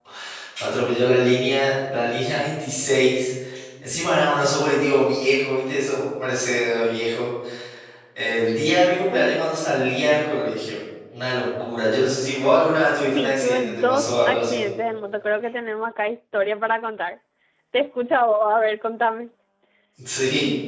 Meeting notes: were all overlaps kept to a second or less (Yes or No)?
No